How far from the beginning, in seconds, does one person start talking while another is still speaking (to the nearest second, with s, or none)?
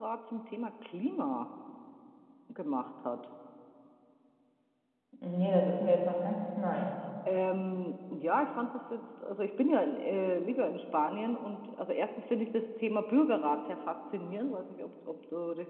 none